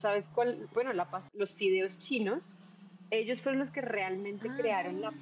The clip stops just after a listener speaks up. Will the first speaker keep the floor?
Yes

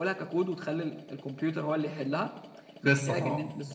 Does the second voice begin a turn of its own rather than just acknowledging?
No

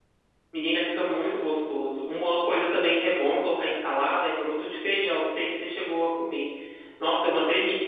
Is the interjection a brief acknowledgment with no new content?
Yes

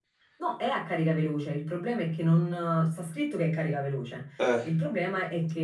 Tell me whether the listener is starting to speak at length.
No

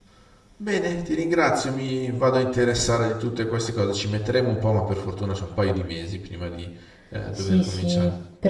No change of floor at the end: No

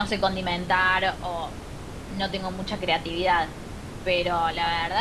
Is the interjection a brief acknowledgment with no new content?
Yes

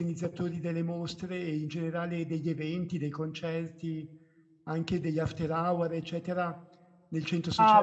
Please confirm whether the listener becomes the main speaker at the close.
Yes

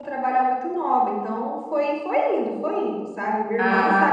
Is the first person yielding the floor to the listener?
No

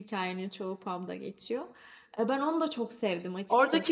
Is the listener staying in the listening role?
No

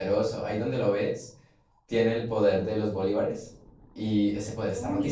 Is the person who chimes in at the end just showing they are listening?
No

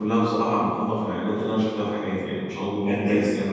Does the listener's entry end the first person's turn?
Yes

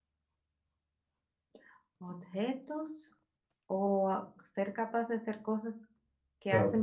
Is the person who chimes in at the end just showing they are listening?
No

